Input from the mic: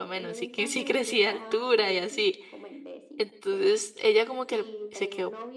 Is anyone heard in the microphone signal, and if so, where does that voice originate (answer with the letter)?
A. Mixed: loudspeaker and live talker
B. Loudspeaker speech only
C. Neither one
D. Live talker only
A